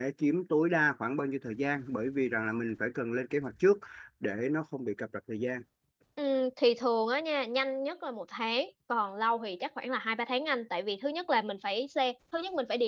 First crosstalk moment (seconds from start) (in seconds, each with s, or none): none